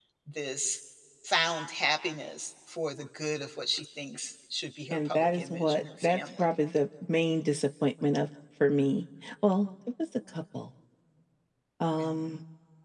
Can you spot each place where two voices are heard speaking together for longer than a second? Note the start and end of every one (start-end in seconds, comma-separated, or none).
4.9-6.4